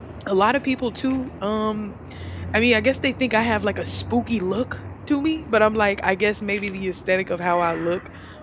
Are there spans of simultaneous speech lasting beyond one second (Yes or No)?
No